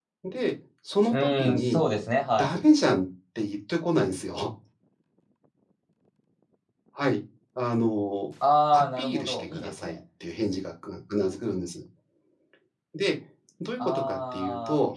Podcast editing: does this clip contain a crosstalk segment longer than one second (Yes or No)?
Yes